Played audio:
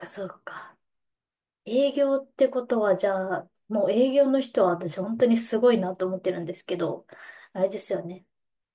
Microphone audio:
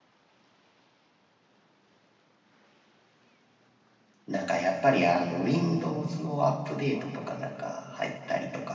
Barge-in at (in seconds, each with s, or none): 4.3 s